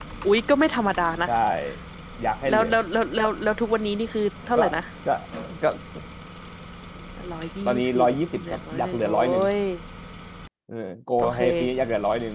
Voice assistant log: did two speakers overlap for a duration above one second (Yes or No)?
Yes